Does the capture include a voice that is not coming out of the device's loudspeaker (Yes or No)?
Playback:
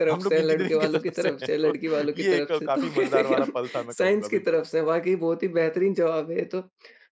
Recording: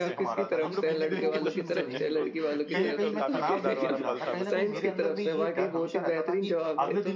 Yes